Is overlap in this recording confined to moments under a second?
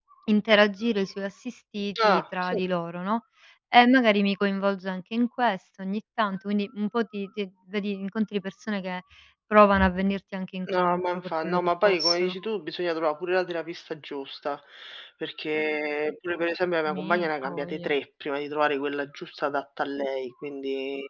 No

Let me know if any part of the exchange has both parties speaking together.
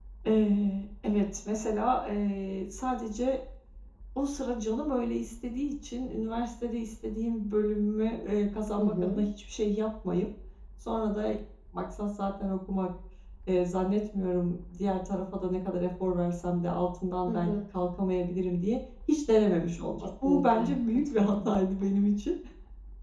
Yes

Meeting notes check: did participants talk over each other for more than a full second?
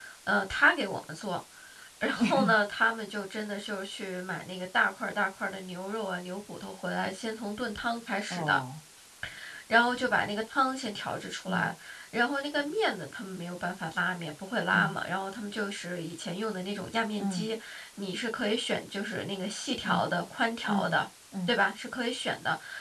No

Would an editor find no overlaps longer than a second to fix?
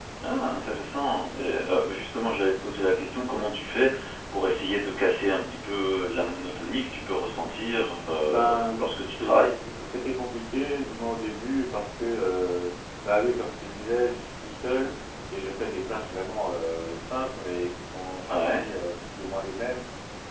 No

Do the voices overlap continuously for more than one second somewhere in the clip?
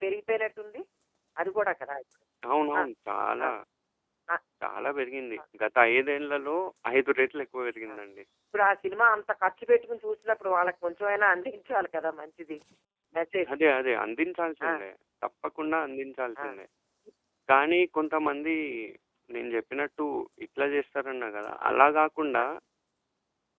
No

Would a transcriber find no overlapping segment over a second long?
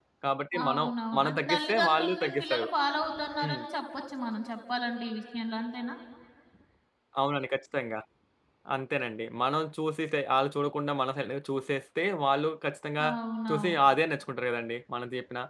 No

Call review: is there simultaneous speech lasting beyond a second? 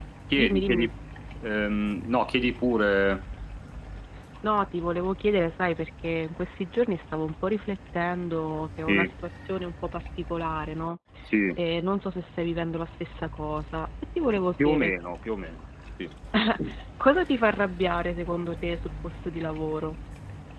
No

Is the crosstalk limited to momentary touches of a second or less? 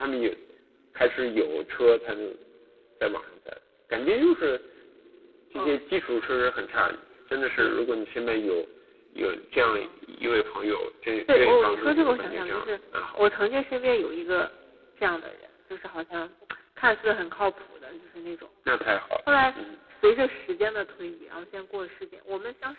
No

